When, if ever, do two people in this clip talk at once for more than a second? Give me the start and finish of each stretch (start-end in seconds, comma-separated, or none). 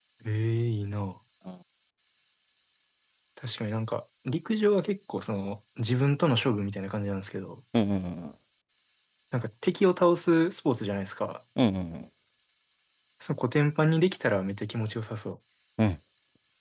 none